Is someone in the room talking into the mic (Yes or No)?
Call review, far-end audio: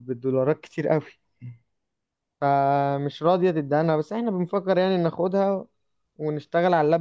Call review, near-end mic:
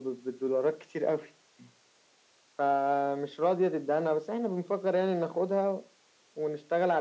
No